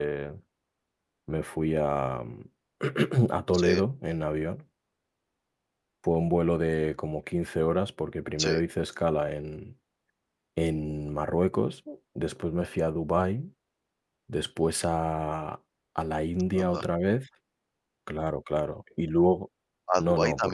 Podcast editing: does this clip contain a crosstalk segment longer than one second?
No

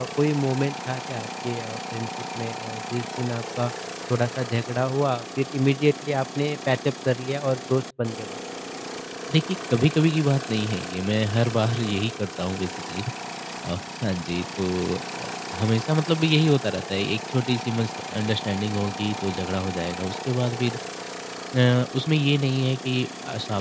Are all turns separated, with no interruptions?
Yes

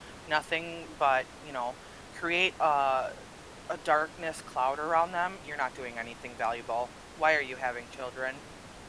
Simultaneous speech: No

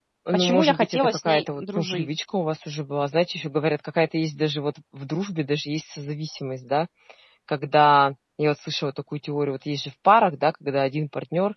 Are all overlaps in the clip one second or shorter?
No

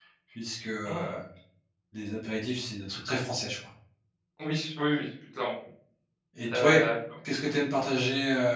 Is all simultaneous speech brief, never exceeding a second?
Yes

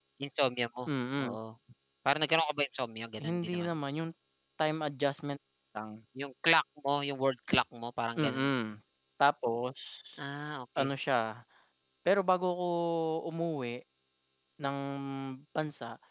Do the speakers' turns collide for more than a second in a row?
No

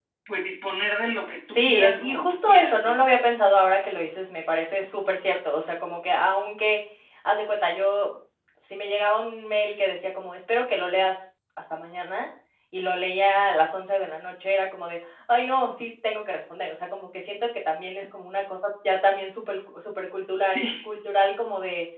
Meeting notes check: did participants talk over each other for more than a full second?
Yes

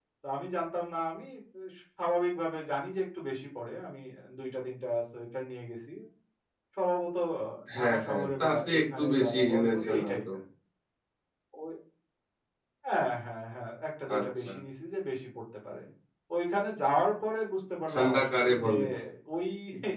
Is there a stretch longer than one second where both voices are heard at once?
Yes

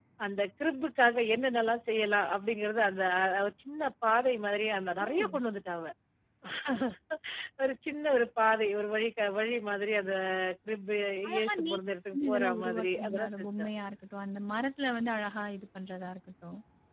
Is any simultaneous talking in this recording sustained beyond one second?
Yes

